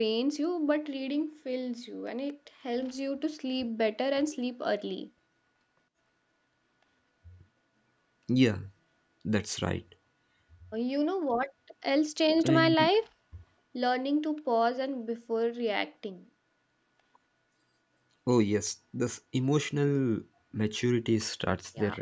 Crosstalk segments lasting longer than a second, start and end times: none

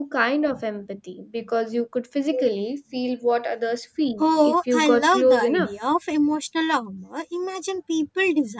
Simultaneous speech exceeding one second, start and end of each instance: 4.2-5.7

